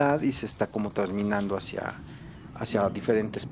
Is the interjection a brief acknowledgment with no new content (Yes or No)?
Yes